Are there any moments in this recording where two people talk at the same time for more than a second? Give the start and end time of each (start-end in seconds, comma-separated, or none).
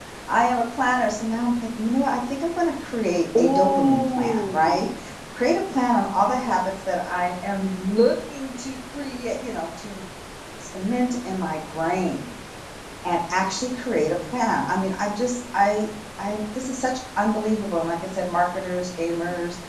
3.4-4.9